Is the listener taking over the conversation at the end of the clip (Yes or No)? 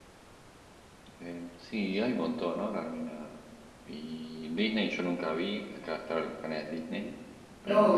Yes